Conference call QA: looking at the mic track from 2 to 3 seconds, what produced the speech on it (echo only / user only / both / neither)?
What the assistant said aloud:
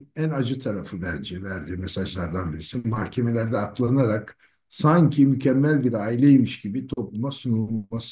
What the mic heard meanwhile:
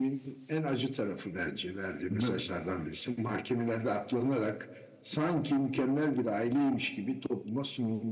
both